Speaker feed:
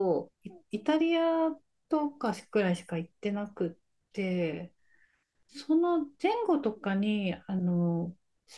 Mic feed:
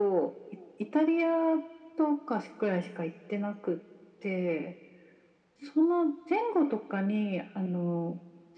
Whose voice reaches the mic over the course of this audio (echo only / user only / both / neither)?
echo only